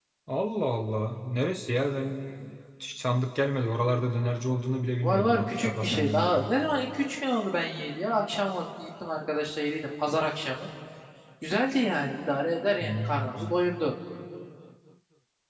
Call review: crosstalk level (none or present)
present